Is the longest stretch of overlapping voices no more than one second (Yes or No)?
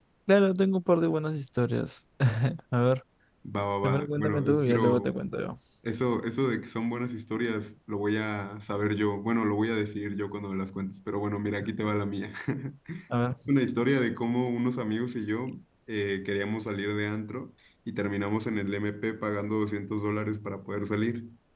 No